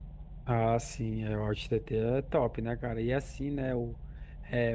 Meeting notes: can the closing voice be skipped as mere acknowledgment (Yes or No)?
Yes